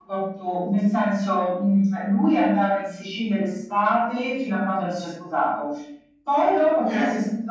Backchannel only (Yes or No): Yes